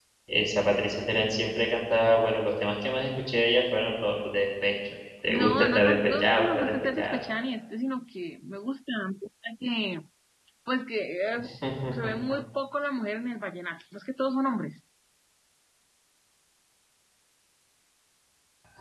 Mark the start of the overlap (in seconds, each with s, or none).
5.3 s